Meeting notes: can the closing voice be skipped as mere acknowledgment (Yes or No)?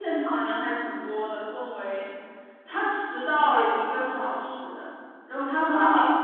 No